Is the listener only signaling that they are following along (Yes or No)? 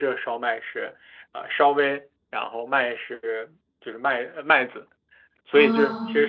Yes